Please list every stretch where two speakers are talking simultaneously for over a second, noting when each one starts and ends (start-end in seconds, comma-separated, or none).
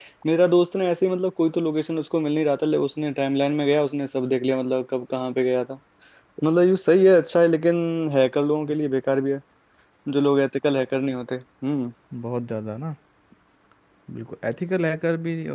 none